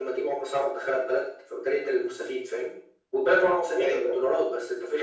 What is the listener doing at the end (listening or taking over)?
listening